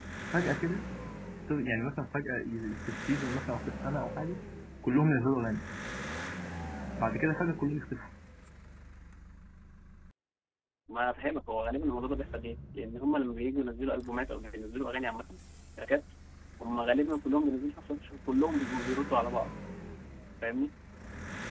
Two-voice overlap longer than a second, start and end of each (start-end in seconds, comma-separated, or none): none